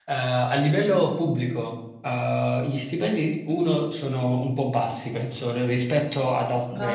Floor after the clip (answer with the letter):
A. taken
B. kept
B